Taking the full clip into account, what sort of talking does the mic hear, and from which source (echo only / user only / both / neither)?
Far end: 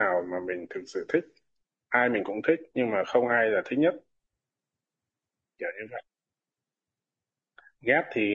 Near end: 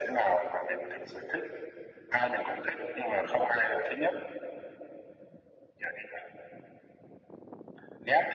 echo only